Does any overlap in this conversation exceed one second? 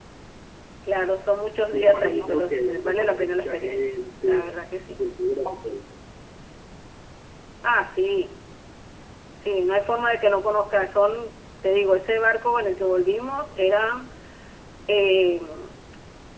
Yes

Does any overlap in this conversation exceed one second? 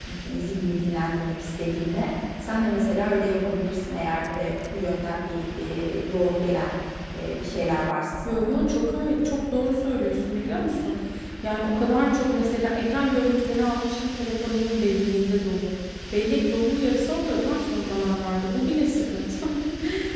No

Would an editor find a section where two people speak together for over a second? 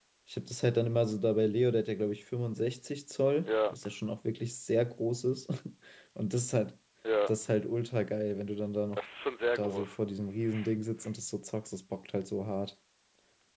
No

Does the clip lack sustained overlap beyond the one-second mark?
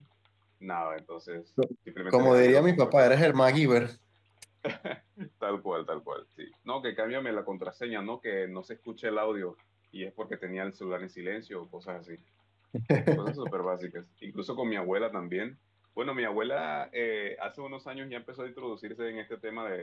No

